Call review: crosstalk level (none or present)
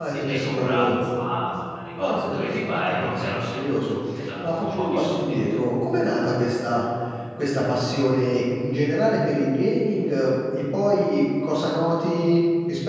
present